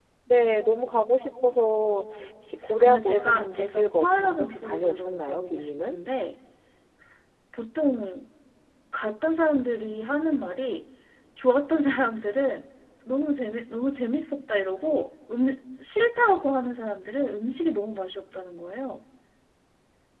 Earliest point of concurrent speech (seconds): 2.7 s

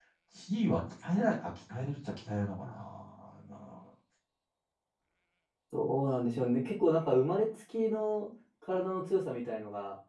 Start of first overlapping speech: none

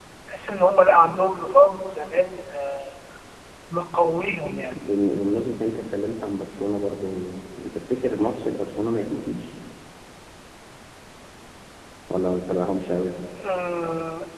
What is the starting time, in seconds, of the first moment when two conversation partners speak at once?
none

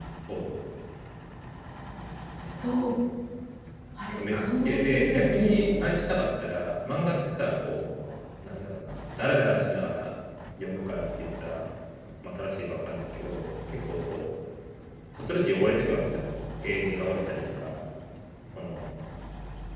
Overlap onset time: 4.3 s

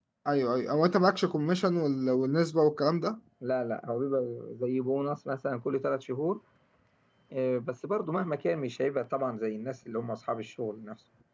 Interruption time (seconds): none

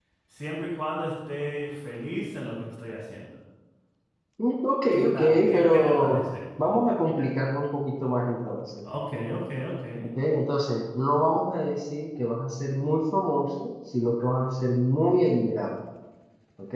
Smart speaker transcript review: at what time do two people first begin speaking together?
4.9 s

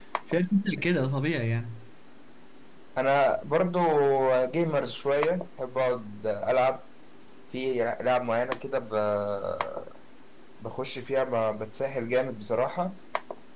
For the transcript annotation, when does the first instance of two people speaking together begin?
none

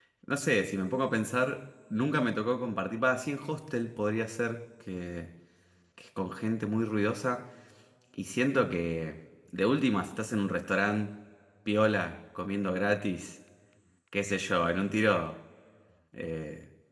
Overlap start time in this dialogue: none

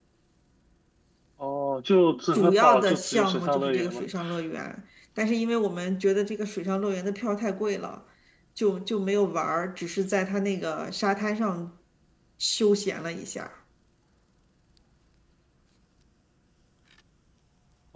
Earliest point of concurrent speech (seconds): 2.3 s

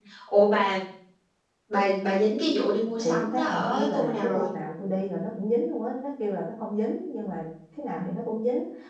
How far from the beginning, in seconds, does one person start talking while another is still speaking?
3.0 s

